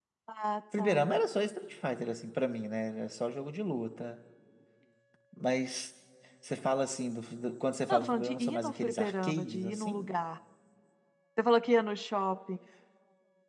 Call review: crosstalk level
present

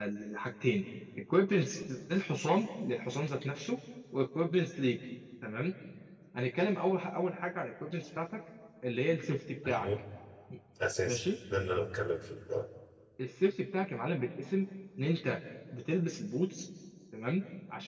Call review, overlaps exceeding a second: none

